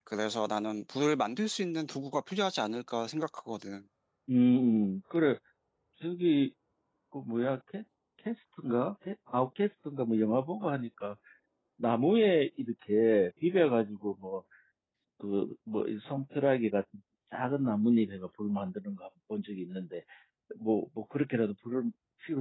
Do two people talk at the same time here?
No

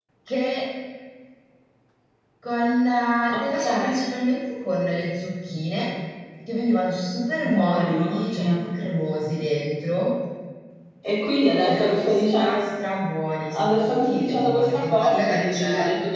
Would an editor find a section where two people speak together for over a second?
Yes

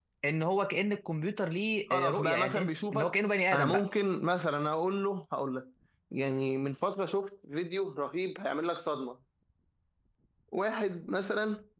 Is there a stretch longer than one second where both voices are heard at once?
Yes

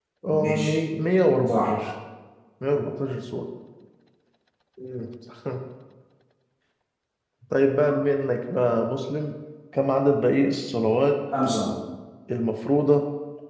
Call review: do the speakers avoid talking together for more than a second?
Yes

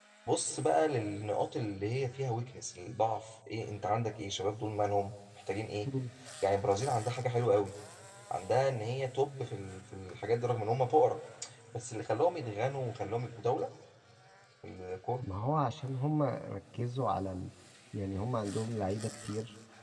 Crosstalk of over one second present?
No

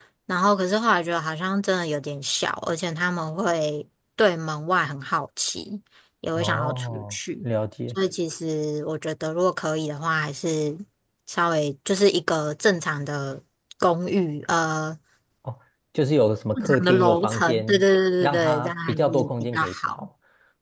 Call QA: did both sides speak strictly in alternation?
No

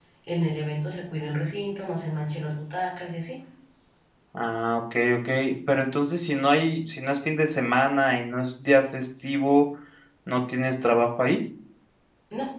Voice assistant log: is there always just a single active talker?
Yes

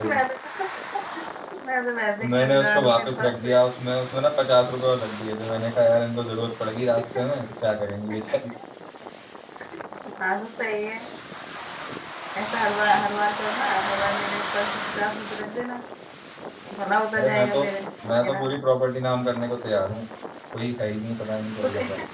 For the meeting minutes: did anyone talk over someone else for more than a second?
Yes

